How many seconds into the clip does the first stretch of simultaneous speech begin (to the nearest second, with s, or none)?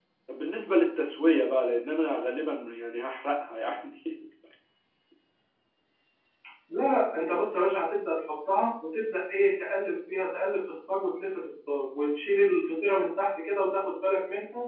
none